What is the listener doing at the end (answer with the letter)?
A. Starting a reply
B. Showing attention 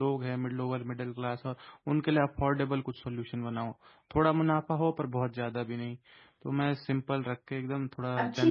A